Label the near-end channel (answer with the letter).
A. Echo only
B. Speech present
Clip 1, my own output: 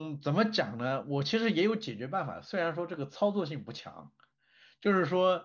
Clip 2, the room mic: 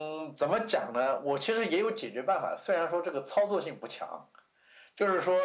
A